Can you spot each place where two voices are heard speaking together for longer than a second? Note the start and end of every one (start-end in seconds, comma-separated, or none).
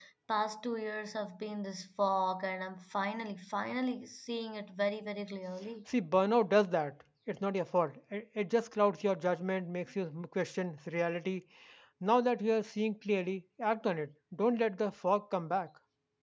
none